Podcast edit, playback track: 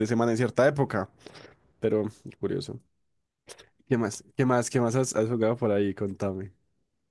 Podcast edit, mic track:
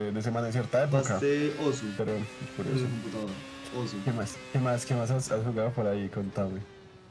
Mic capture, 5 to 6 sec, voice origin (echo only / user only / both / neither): echo only